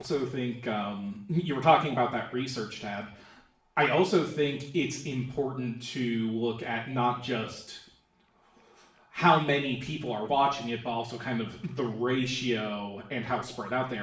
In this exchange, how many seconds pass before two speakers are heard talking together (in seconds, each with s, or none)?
none